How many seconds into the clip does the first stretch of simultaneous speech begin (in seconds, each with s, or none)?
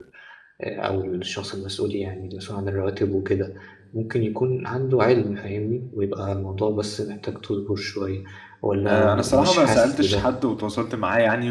8.9 s